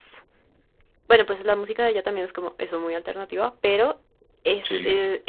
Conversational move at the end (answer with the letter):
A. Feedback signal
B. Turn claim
A